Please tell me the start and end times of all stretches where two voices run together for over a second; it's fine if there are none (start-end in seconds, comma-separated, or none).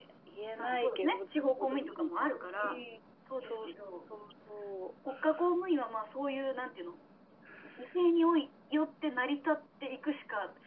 0.6-1.8